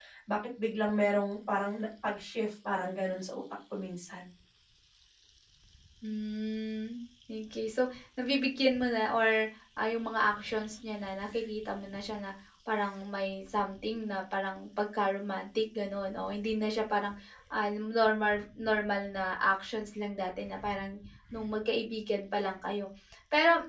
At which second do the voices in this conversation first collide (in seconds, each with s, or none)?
none